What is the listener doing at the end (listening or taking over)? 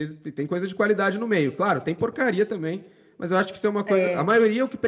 listening